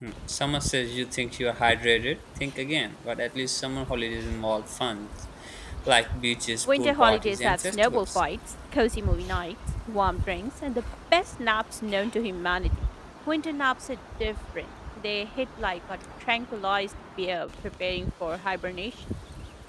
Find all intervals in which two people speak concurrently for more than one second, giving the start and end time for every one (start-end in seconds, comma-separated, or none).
6.7-8.2